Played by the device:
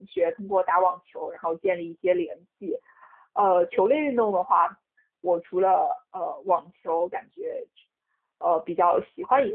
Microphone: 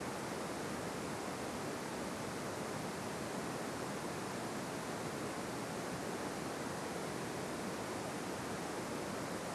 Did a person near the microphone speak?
No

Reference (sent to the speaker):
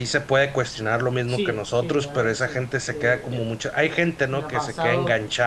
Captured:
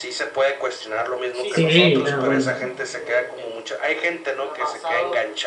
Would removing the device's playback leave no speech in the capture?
No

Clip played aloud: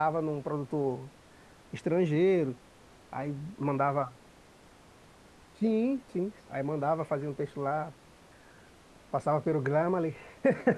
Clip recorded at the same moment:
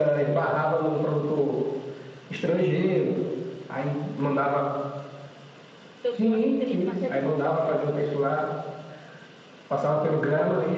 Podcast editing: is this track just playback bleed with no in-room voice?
No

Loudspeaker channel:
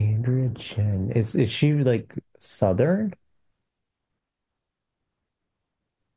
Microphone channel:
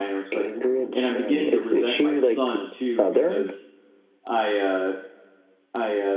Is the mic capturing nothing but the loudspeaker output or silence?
No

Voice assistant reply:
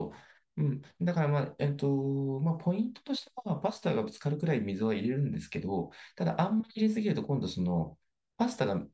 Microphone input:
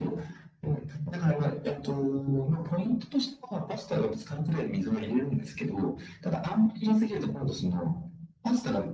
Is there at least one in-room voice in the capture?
No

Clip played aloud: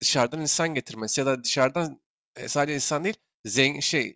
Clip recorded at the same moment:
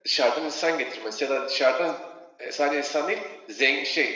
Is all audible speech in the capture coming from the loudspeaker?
Yes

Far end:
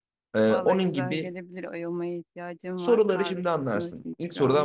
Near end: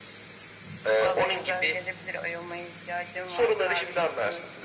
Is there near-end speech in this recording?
No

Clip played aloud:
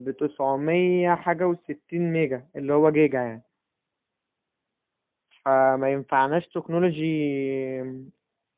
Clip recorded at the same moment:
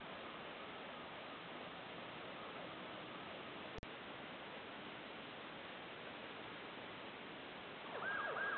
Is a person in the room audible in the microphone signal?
No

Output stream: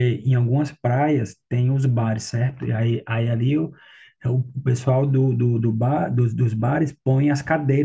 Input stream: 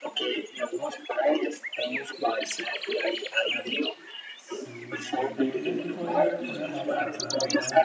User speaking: Yes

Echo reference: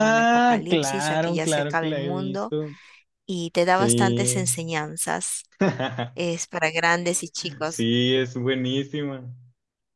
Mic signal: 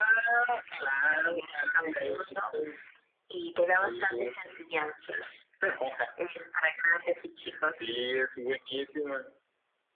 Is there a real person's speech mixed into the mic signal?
No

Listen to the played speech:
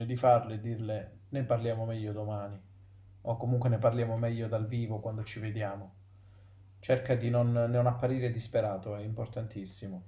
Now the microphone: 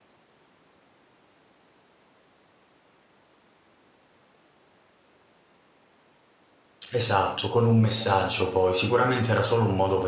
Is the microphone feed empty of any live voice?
No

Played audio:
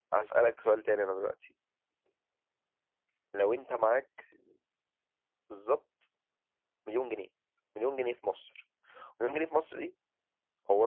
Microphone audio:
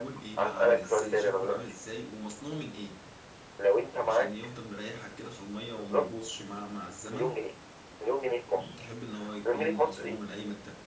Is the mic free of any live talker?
No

